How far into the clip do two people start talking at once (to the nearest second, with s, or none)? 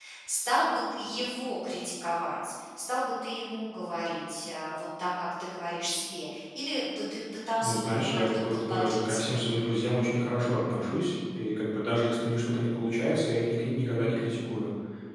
8 s